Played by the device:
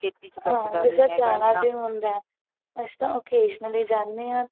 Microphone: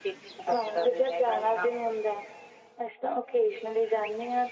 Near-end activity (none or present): none